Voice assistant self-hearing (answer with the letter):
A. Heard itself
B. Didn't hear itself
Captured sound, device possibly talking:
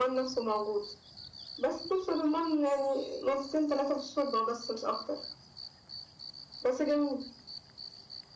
A